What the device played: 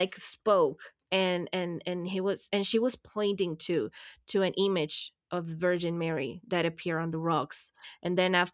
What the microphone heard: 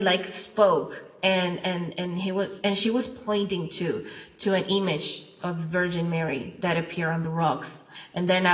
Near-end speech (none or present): none